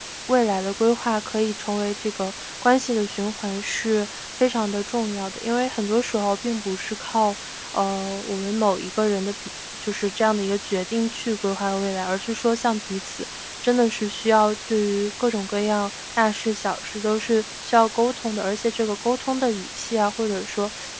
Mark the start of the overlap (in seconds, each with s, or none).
none